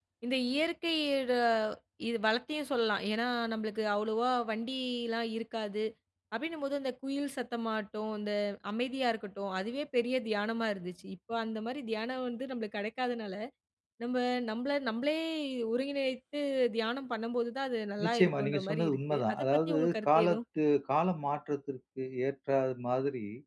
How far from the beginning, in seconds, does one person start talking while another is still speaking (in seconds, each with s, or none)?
18.0 s